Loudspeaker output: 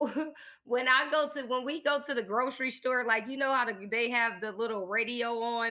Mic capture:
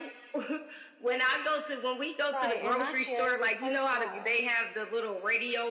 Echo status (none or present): present